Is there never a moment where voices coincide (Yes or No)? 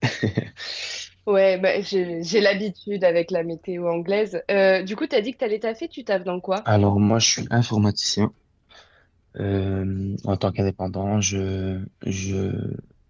Yes